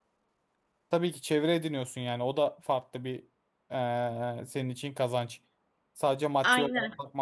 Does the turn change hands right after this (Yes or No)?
Yes